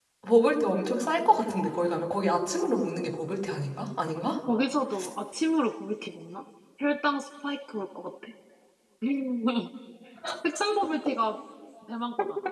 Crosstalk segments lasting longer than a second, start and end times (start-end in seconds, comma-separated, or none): none